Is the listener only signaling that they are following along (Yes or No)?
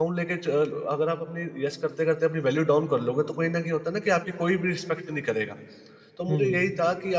Yes